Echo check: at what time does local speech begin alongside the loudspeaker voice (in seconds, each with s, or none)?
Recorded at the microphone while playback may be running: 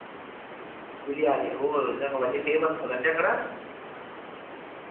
1.1 s